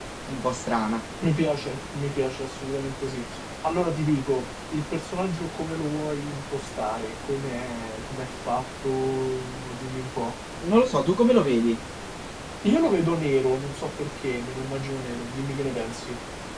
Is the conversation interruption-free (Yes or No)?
Yes